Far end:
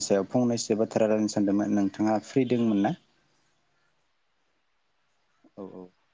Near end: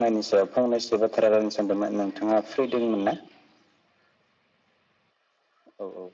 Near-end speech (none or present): none